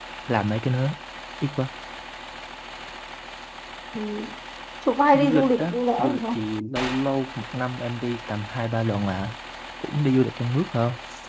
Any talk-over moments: Yes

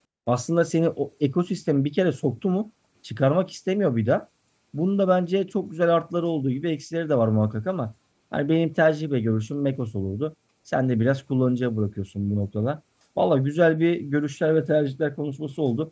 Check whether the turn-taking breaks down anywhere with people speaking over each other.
No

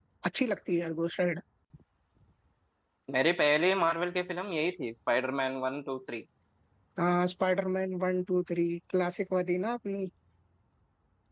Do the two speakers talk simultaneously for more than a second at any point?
No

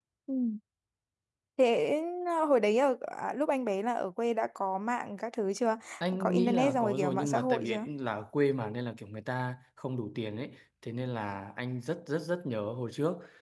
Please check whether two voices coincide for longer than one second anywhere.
Yes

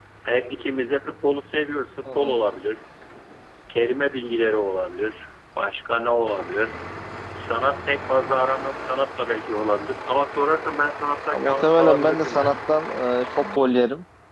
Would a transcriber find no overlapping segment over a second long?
No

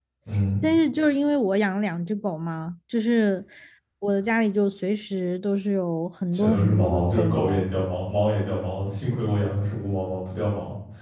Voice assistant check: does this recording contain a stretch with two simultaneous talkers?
Yes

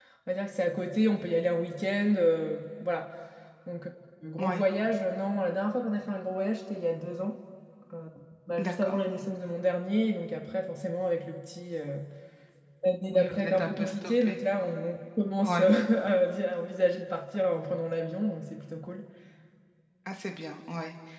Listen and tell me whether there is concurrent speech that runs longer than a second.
Yes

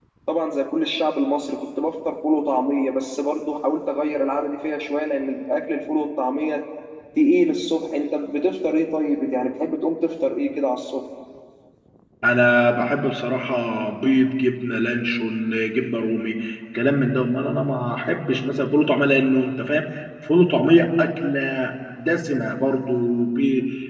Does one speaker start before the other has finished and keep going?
No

